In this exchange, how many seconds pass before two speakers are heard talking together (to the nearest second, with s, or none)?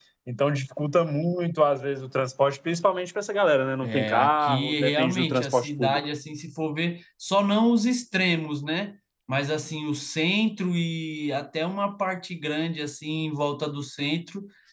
4 s